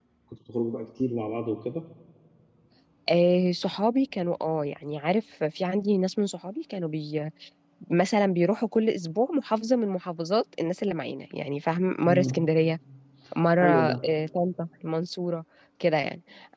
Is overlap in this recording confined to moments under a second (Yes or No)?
Yes